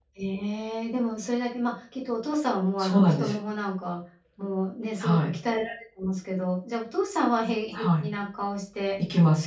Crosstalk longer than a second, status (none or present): none